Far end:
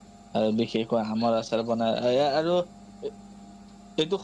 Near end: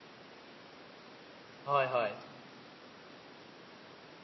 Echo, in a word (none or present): none